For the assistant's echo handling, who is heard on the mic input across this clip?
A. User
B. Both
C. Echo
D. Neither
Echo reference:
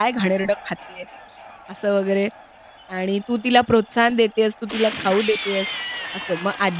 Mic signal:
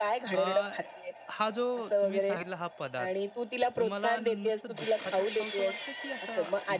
B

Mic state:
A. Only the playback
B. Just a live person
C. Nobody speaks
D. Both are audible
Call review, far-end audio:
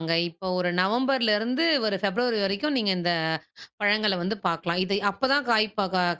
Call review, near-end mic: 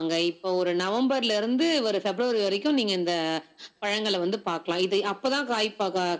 A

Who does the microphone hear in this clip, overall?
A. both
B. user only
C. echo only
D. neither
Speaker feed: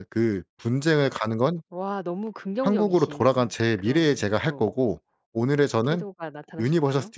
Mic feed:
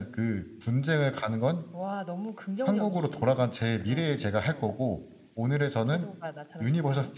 C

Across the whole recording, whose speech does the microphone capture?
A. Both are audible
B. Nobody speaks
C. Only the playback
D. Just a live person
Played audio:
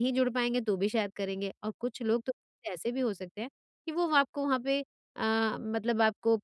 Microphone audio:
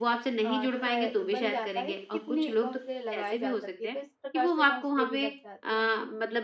A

